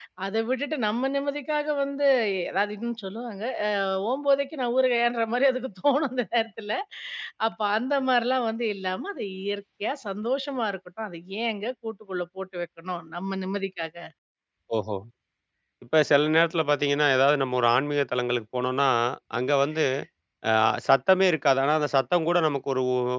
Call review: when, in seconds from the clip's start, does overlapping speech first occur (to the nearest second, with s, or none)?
none